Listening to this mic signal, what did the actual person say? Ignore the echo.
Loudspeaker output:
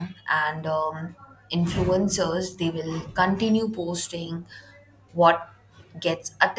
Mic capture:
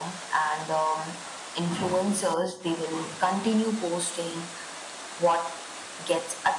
none

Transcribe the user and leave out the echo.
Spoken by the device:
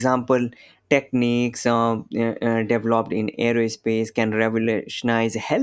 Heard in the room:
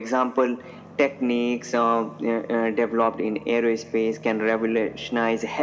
none

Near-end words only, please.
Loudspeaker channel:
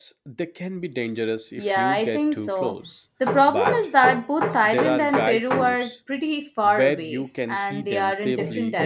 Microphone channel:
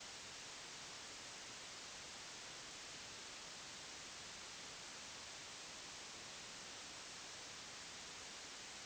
none

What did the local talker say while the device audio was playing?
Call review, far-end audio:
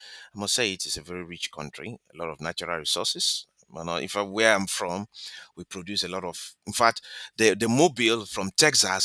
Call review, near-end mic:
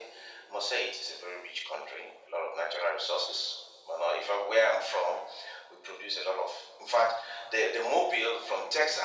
none

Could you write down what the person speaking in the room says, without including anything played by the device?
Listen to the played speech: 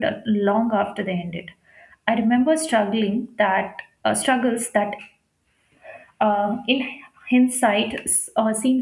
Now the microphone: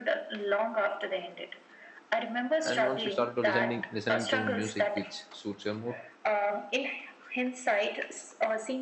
and once you start to listening listening to music which suits your mood

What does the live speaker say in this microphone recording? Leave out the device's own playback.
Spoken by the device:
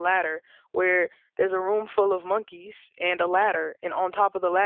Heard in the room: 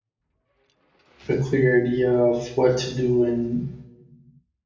a clear idea of what to do and

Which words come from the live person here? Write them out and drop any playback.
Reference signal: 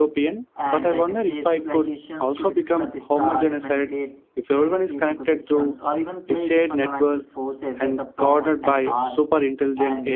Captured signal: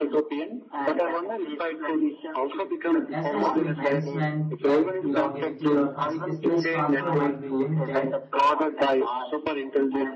access to enhancement like longevity or consciousness transfer might be limited.

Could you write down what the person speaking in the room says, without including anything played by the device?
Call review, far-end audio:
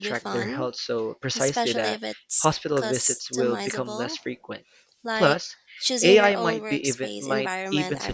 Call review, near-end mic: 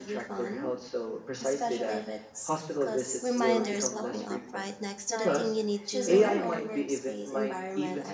reminders popping up right next to the thing you need to remember,

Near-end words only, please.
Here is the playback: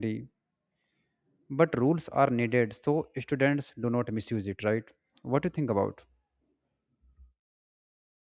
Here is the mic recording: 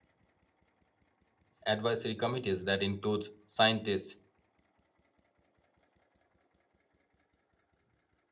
advisory committees that includes scientists,

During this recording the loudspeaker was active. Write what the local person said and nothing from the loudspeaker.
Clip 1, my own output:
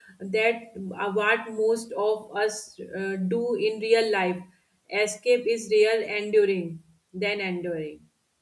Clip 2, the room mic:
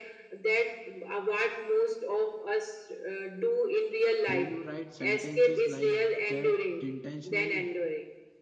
Do you write sentences like that intentionally?

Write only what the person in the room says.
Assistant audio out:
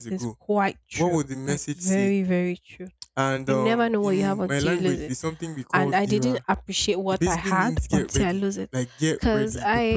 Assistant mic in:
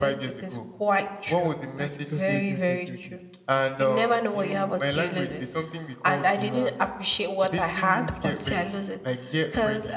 Say, okay, okay, okay, okay, okay. Give me, give me, give me, give me.

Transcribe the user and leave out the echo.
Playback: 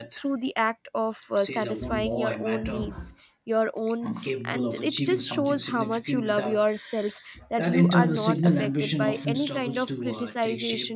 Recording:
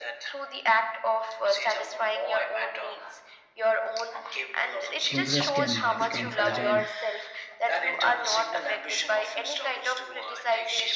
progress can uh, become fragile.

